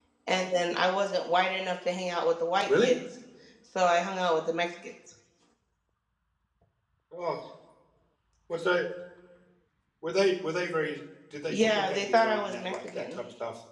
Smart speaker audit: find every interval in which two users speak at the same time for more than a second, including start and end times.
11.5-13.0

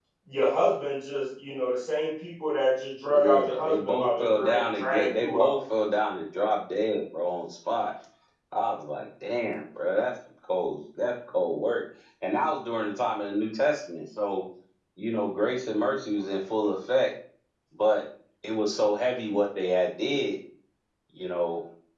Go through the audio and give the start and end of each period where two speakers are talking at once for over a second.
3.1-5.6

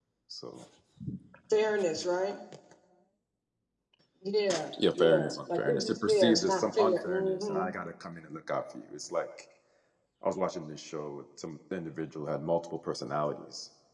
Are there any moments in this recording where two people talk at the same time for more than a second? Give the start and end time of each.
5.0-7.6

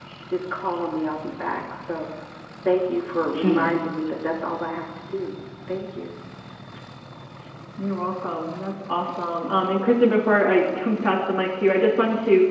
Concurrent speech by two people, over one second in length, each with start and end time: none

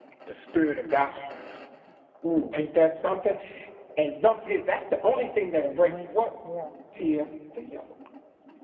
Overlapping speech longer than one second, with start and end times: 5.1-6.3

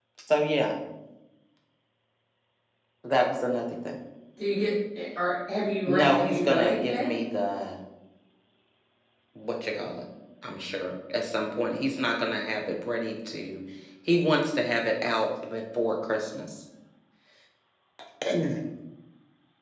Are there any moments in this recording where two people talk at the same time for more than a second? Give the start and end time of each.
5.9-7.2

